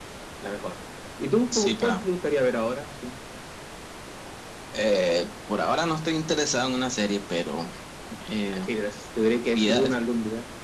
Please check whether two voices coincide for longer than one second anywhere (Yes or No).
No